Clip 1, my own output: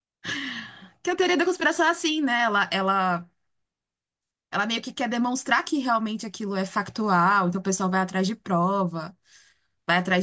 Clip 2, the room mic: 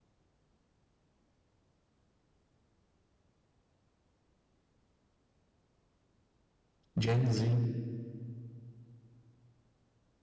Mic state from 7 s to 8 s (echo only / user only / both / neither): user only